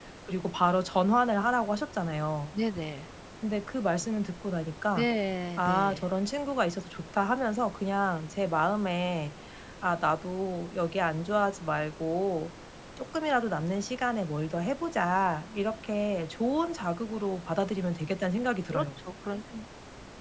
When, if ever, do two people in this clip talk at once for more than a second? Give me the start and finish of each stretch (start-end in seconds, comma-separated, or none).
none